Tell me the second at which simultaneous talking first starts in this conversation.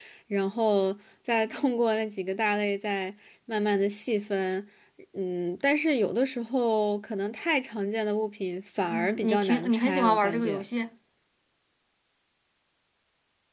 8.9 s

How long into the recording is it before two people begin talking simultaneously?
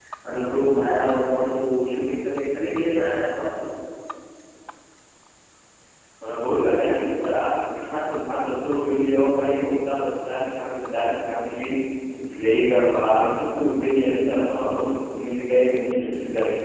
none

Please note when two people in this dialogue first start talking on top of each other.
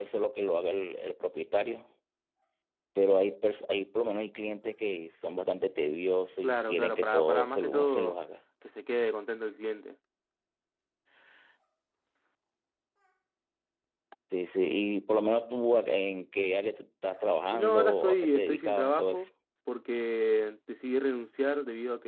6.4 s

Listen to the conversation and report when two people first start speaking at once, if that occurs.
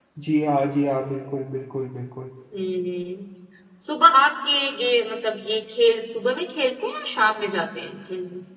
none

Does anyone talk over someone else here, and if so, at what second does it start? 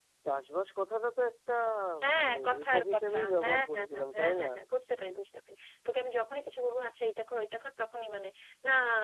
2.0 s

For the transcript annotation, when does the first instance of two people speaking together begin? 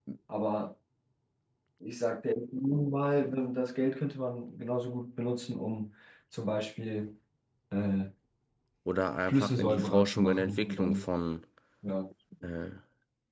9.3 s

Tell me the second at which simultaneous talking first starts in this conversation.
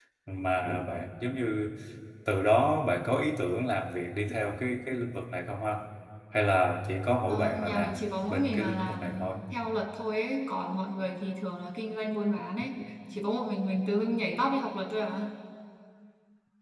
7.3 s

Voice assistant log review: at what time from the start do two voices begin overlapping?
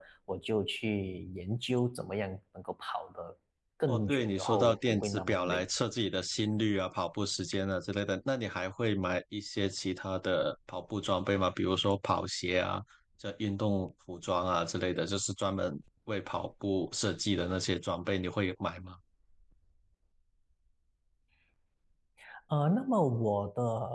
3.9 s

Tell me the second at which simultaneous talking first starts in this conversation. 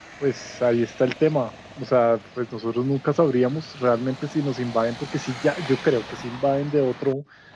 none

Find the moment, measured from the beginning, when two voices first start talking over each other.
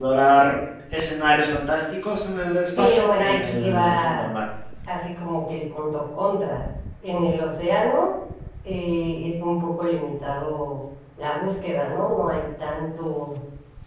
2.8 s

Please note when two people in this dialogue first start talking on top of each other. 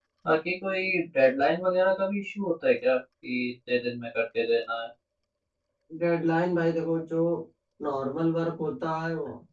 none

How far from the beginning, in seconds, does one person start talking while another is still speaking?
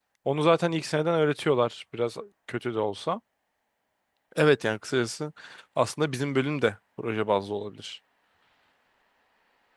none

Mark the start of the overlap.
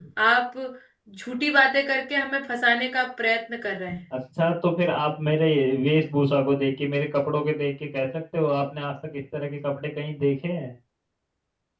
none

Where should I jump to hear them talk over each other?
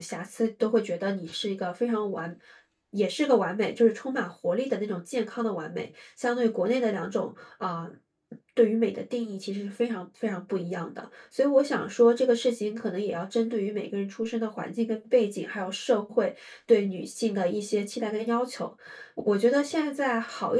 none

